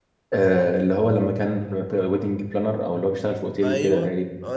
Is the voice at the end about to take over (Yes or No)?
Yes